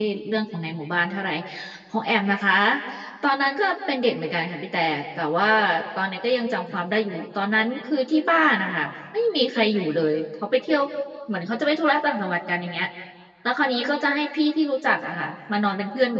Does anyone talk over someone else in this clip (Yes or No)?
No